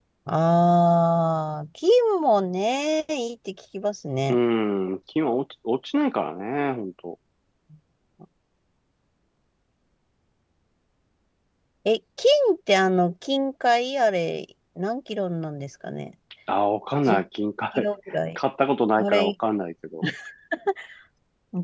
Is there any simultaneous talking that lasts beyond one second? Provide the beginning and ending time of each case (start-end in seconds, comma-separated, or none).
none